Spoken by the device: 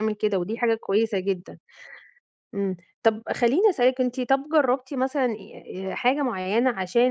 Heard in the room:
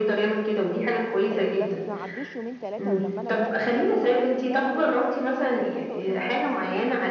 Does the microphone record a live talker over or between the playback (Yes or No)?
Yes